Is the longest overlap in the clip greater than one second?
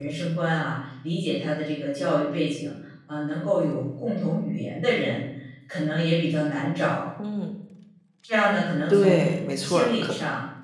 Yes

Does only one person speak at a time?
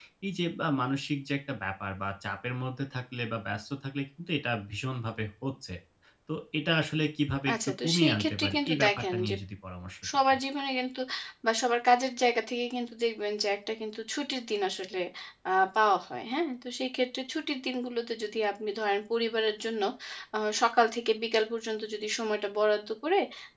No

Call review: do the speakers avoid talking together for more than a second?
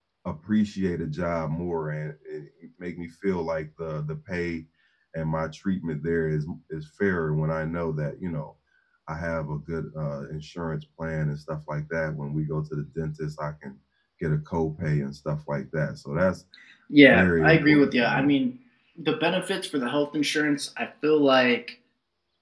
No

